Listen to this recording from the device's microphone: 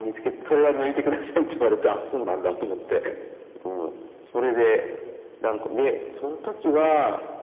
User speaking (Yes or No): No